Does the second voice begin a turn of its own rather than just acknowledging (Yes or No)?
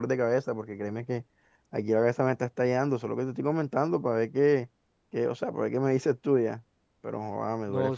Yes